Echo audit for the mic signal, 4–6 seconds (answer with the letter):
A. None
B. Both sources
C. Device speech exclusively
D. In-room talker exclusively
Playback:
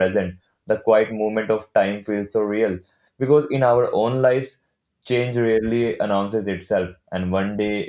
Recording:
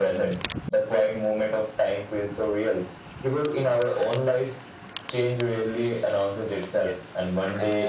C